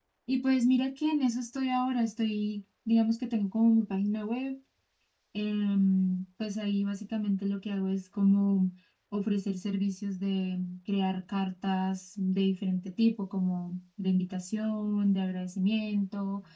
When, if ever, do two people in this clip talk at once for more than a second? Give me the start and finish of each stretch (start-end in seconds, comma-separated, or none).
none